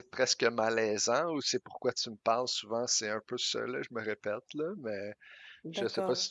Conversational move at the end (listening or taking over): listening